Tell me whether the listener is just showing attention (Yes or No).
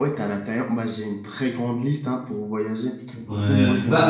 No